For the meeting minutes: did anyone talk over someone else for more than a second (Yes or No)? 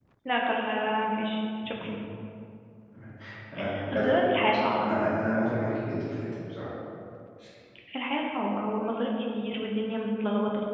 No